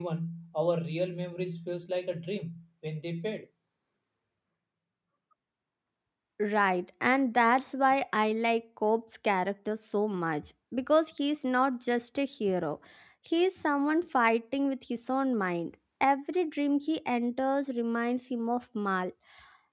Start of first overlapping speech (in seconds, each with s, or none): none